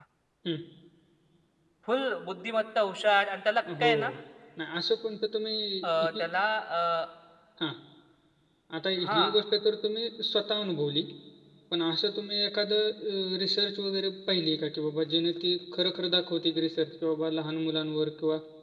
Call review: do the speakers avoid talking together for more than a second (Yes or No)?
Yes